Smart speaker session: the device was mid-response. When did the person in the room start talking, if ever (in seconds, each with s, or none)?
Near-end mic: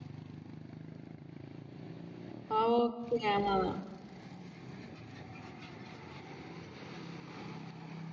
2.5 s